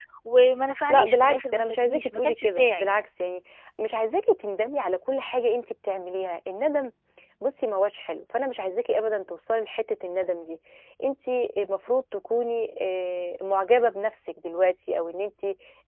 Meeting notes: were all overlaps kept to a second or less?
No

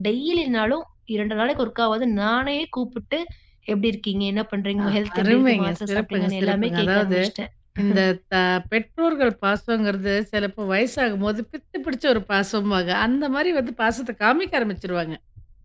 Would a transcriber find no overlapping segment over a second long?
No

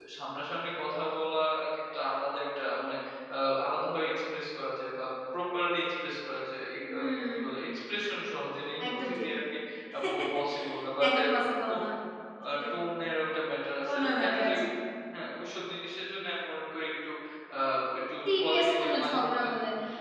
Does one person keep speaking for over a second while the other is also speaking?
Yes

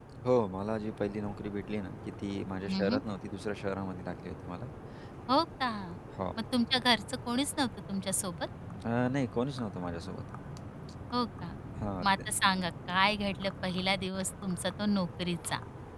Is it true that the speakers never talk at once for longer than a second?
Yes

